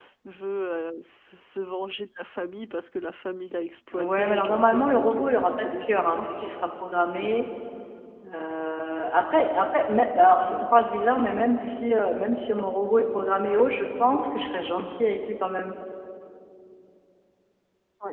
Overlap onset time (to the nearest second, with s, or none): 4 s